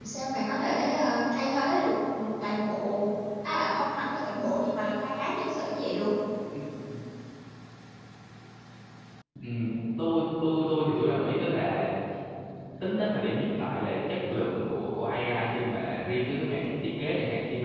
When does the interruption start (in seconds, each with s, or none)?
none